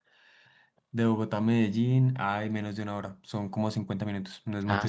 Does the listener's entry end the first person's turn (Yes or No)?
Yes